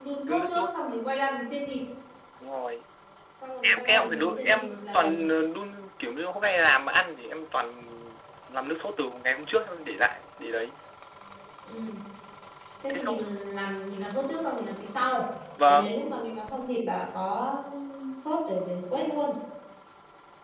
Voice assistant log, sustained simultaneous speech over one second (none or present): present